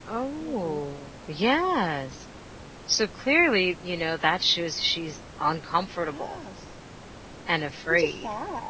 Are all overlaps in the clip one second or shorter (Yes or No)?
Yes